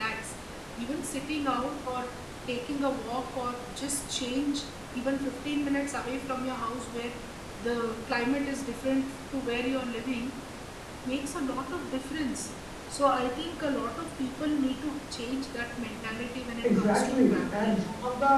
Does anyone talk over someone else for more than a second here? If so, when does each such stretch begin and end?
16.6-17.8

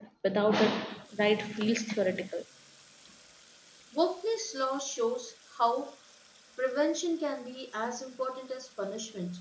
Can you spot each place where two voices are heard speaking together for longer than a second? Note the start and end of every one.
none

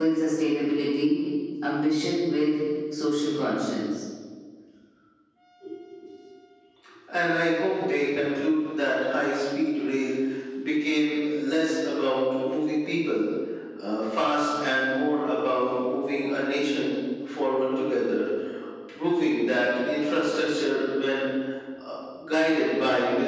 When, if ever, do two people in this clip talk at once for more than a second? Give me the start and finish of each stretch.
none

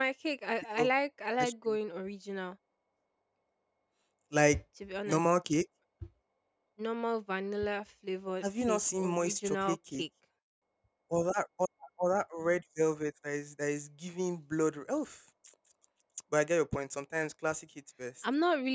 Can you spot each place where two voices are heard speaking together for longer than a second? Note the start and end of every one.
8.4-10.0

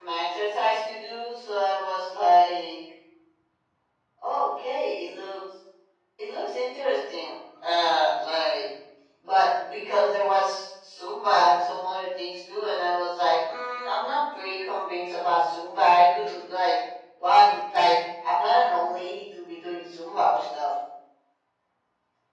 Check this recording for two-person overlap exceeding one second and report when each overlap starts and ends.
none

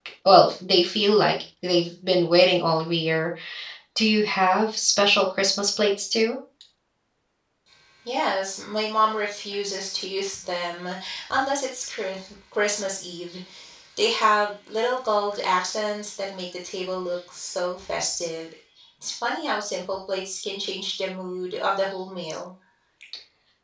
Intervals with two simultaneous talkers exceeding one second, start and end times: none

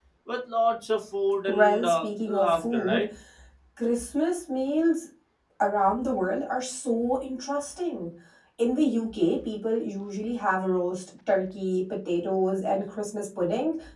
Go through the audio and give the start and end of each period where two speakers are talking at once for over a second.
1.5-3.0

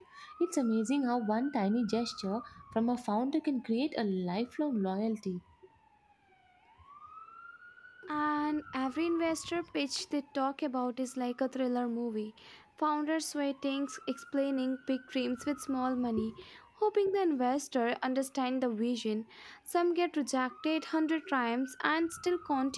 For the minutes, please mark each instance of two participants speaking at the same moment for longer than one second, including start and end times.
none

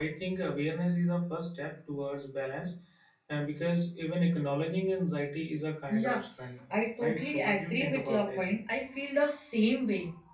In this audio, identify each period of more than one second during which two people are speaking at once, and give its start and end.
7.0-8.5

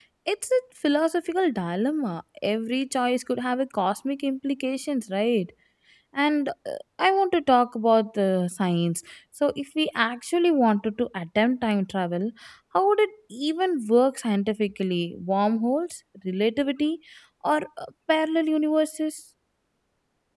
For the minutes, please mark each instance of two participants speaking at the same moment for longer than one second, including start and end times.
none

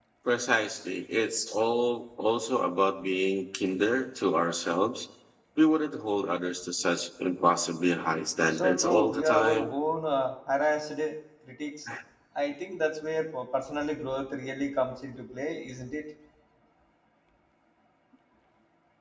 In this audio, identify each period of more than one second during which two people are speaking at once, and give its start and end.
8.5-9.7

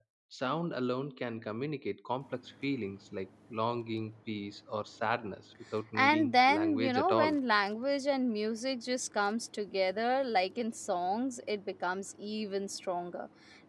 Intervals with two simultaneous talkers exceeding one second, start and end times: 6.0-7.4

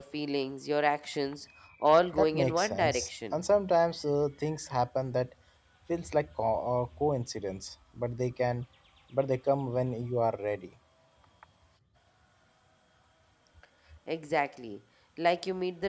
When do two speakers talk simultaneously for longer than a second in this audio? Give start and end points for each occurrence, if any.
2.1-3.4

